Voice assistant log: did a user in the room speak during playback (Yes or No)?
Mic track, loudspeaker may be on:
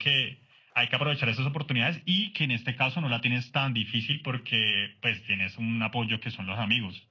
No